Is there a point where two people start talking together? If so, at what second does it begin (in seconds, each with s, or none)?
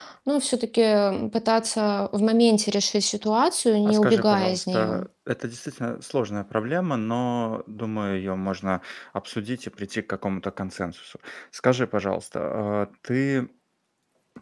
3.8 s